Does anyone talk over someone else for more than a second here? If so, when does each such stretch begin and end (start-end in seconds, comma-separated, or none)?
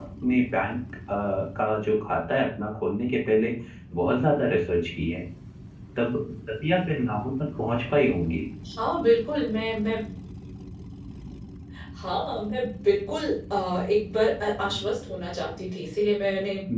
none